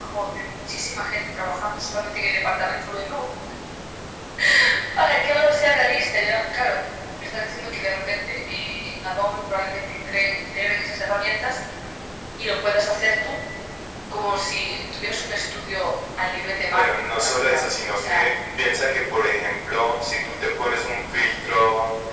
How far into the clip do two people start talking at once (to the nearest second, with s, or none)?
17 s